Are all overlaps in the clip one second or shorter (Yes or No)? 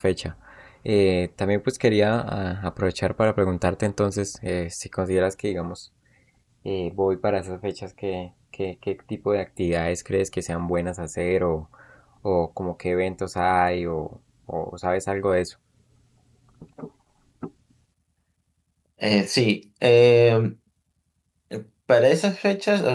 Yes